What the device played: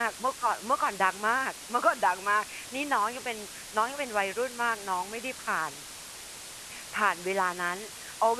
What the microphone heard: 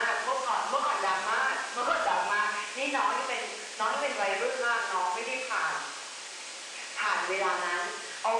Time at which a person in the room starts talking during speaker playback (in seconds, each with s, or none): none